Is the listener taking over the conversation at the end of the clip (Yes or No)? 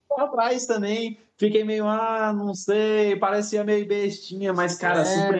Yes